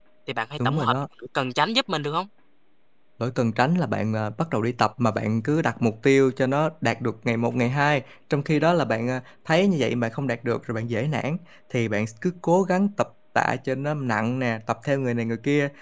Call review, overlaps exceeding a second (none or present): none